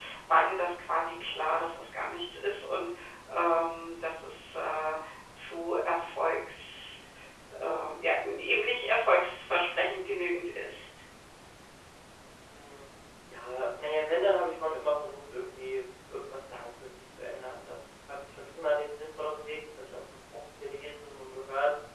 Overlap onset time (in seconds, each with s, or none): none